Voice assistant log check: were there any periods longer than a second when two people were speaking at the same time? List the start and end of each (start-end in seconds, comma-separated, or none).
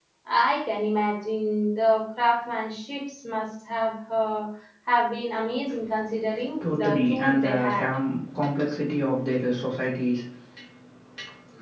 6.6-7.9